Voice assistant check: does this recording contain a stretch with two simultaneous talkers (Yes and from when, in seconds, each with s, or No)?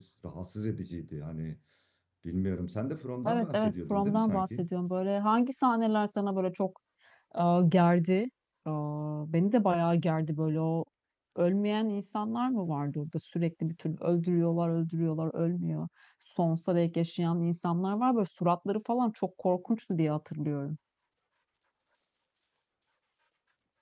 Yes, from 3.2 s